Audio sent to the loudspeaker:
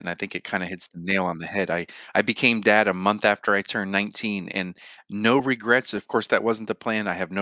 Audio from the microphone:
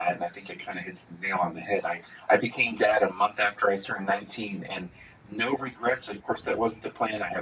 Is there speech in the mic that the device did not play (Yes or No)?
No